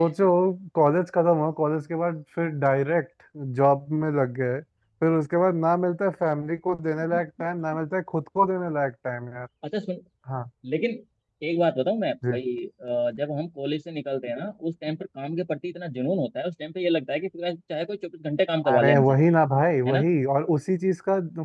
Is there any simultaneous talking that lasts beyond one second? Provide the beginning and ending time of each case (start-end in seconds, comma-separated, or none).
none